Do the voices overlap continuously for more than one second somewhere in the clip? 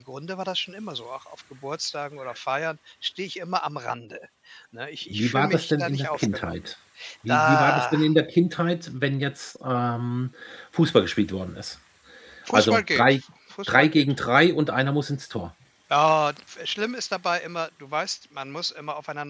Yes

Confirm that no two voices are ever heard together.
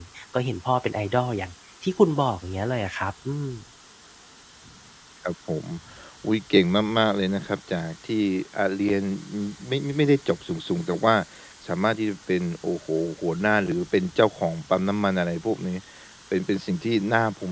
Yes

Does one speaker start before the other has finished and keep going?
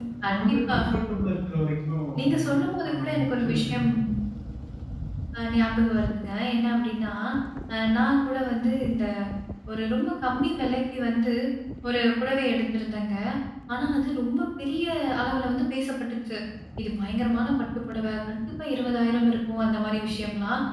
Yes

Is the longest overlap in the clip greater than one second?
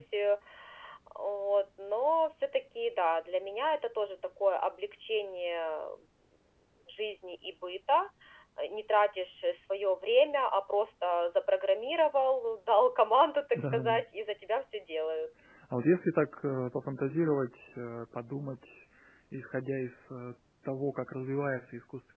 No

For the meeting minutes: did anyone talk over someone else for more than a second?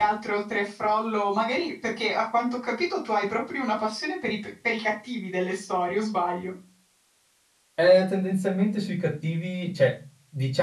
No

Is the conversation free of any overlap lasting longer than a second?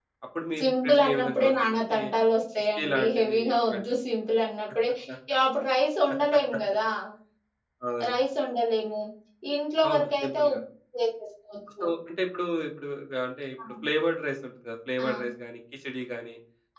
No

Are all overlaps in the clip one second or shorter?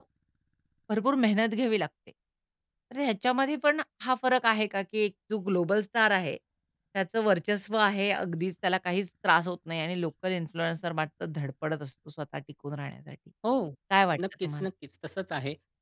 Yes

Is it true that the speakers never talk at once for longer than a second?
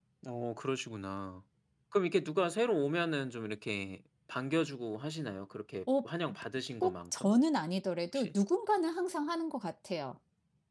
Yes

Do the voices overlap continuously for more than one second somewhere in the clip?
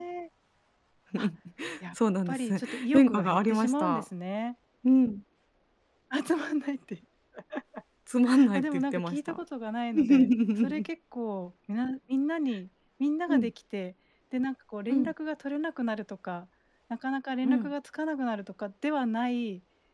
Yes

